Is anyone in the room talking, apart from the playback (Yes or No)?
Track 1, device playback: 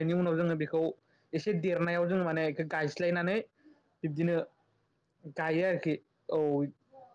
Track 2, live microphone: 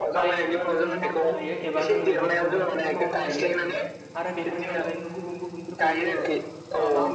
Yes